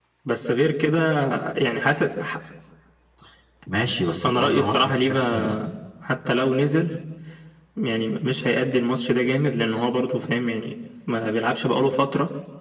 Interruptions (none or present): present